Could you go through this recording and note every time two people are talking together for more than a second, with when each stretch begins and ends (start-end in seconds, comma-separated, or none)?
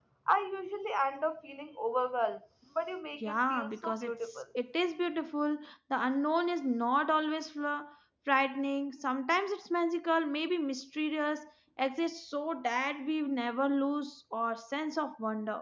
3.2-4.4